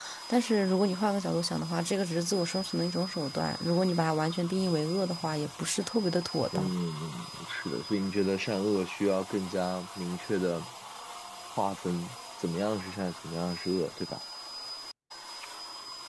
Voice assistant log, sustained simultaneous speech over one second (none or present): none